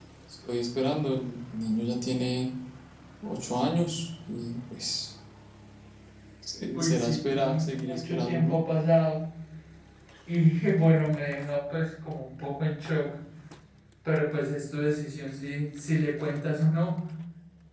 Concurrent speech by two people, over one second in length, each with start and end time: 6.7-8.6

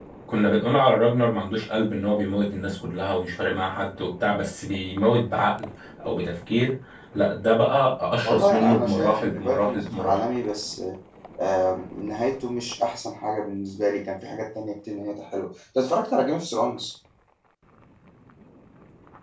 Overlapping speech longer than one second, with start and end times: 8.2-10.2

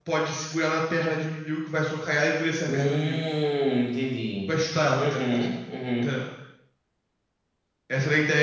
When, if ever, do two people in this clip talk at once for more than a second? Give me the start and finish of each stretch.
none

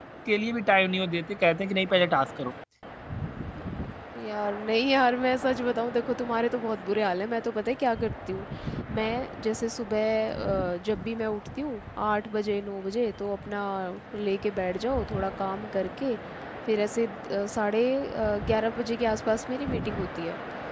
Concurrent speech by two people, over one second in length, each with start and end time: none

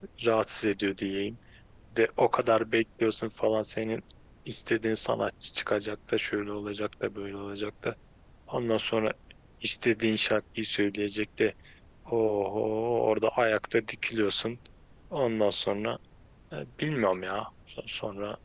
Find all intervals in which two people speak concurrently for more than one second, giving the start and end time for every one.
none

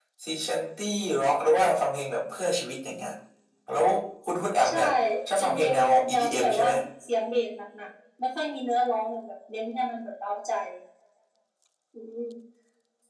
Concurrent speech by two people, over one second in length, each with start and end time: 5.4-6.7

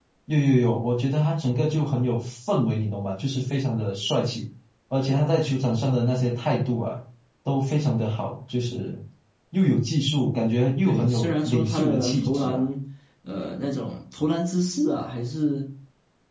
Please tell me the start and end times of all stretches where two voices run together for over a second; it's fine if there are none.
10.8-12.6

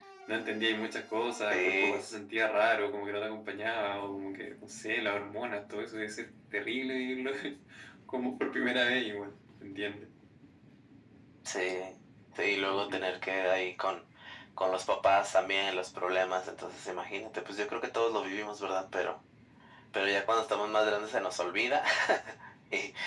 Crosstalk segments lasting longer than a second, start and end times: none

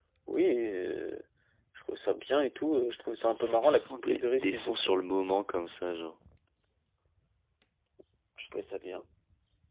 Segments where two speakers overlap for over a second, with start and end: 3.2-5.0

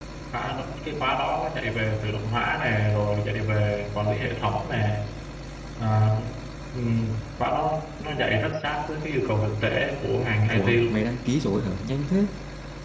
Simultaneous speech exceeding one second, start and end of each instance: none

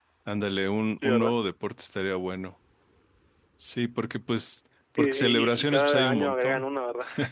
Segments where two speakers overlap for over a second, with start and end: 5.0-6.7

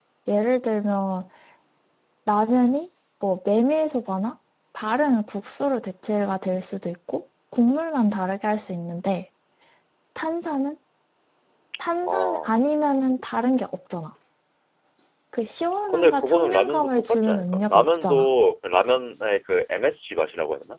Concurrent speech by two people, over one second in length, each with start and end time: 15.9-18.3

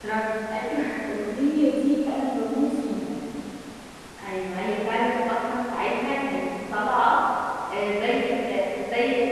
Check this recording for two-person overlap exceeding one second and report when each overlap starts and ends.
none

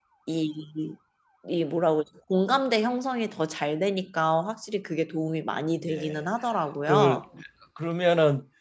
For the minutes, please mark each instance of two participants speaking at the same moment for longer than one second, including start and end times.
none

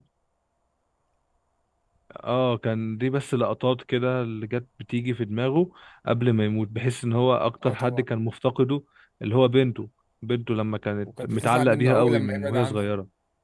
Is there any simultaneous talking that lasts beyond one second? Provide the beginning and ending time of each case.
11.1-12.9

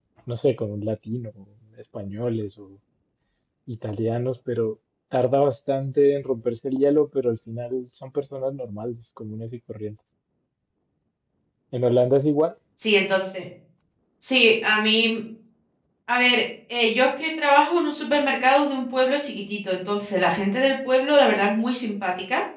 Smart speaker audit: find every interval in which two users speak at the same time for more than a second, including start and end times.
none

